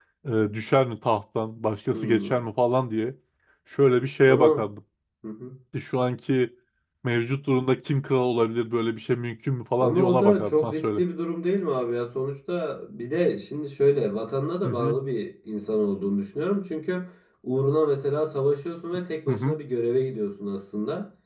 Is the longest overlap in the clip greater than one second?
Yes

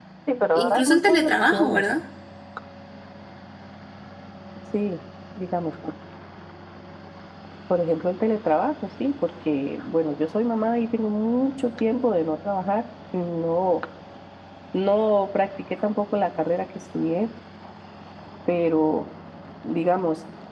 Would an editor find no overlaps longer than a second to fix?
No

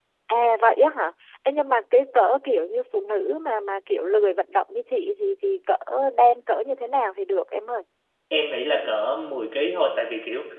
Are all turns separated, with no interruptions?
Yes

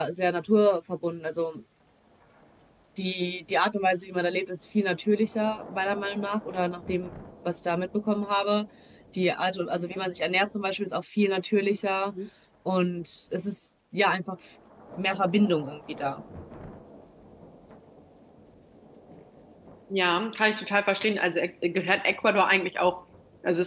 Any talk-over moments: No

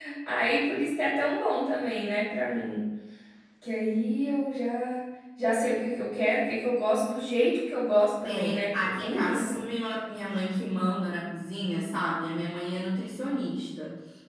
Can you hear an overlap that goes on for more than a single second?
Yes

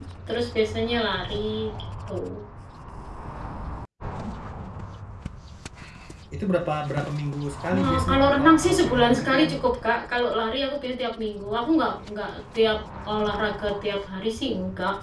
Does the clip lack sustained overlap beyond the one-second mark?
No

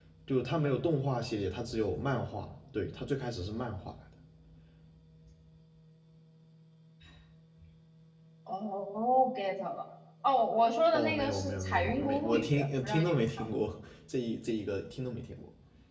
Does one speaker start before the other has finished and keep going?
Yes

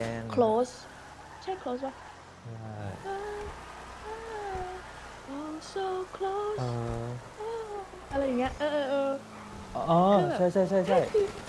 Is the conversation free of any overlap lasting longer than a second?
Yes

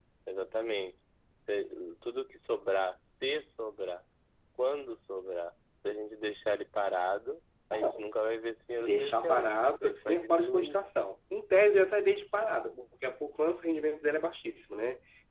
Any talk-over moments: Yes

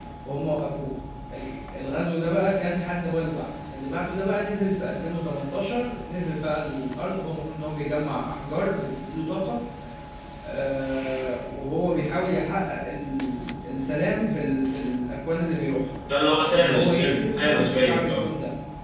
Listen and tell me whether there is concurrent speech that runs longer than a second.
Yes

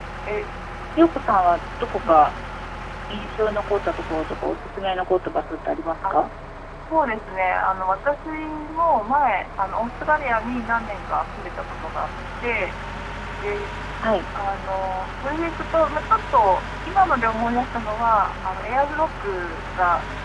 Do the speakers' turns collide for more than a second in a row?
No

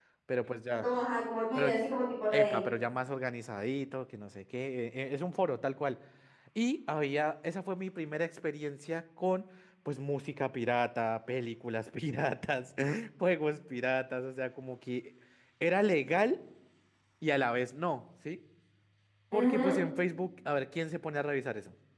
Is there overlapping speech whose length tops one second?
No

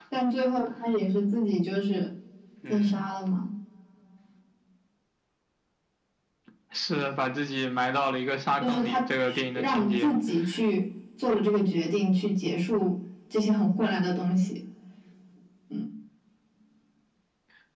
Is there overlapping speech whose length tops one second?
Yes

